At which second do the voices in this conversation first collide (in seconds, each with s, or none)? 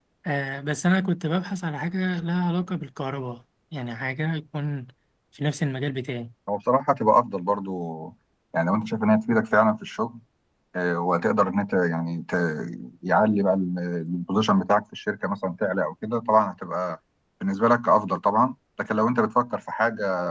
none